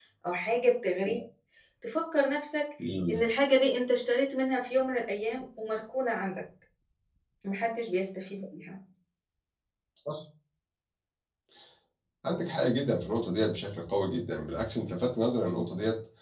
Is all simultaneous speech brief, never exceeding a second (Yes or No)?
Yes